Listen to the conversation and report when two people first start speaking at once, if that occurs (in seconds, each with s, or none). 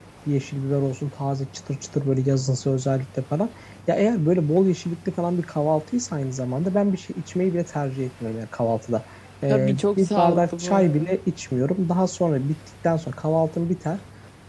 9.5 s